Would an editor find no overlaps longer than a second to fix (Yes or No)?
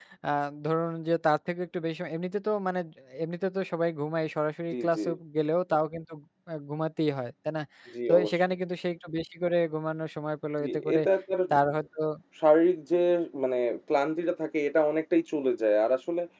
Yes